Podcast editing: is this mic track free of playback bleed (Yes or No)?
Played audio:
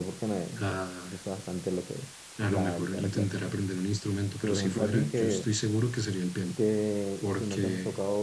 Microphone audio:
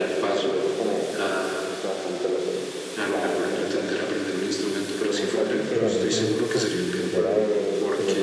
No